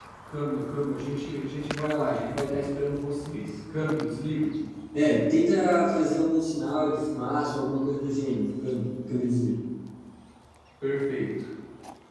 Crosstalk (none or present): none